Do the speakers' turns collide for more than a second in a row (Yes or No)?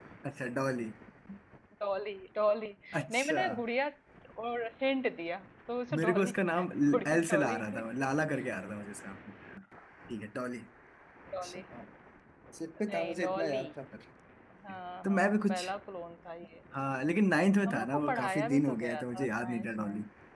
Yes